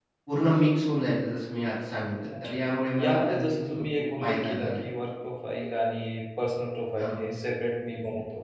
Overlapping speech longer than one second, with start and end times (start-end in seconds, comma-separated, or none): 3.0-4.9